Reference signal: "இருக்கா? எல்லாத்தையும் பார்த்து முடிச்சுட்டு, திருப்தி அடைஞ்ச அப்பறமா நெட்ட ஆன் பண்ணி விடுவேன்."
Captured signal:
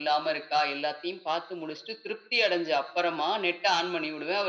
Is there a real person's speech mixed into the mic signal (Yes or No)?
No